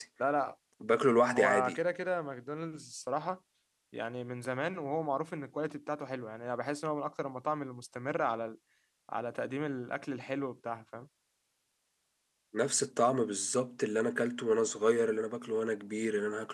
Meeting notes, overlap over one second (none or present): none